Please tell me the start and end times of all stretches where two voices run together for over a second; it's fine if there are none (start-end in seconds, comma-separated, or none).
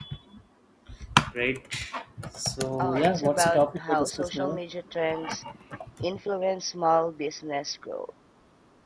2.8-4.6